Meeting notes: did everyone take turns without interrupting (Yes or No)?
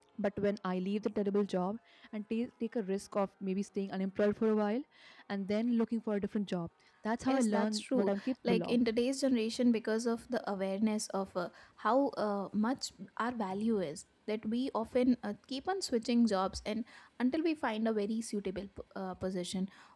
No